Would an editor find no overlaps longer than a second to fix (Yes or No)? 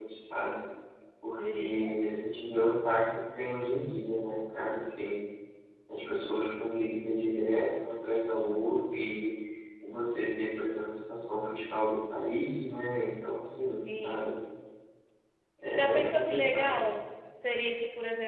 No